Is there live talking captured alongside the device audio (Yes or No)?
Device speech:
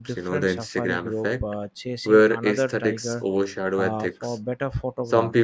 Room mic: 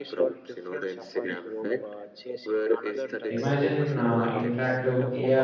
Yes